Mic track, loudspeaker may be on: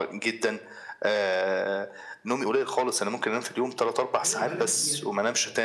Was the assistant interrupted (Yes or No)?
Yes